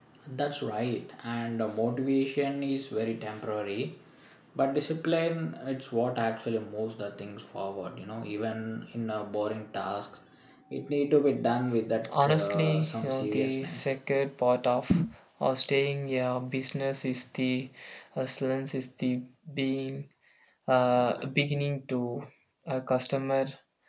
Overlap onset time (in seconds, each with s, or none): 12.0 s